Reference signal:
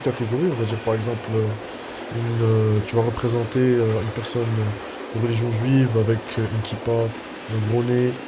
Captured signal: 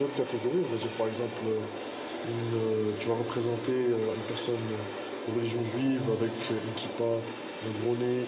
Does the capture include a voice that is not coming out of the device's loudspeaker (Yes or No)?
No